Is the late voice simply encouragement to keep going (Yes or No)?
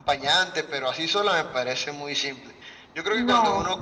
Yes